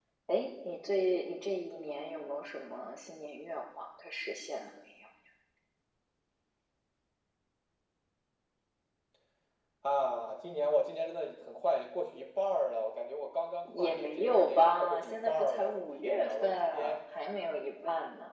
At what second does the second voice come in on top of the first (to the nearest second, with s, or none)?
14 s